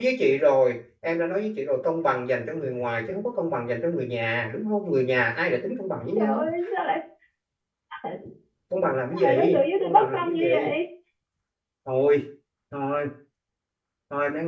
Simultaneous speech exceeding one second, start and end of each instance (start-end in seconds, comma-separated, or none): 9.1-10.7